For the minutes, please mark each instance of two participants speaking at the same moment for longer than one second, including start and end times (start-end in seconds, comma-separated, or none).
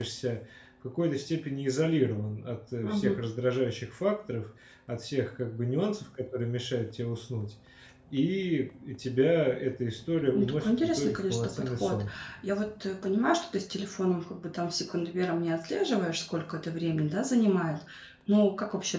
10.3-12.0